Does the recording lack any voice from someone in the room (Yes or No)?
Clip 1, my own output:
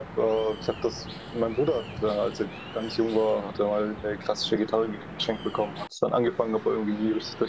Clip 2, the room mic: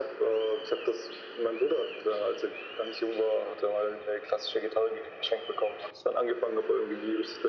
Yes